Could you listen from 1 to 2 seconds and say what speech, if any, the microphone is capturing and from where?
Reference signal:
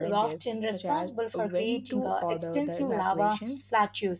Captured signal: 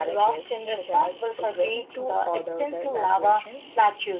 echo only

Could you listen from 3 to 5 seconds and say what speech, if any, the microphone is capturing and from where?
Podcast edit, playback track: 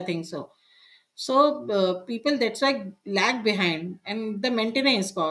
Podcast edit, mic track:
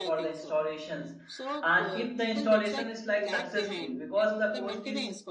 both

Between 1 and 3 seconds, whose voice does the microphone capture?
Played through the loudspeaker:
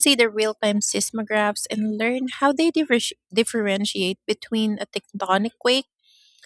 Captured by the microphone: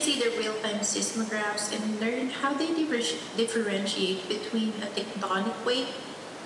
echo only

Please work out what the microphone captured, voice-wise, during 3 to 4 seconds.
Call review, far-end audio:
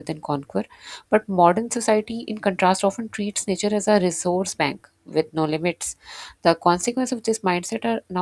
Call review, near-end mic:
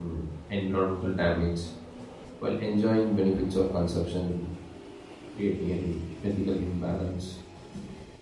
user only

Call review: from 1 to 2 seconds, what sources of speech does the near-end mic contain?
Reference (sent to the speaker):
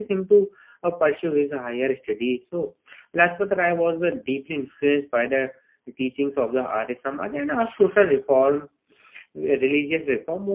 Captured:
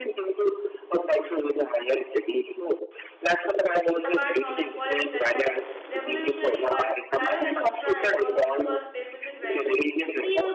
echo only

